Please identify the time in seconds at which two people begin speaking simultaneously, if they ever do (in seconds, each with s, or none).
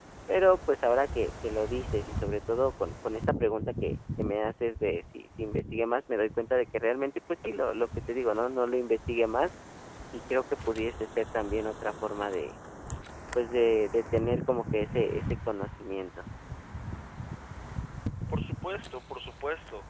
none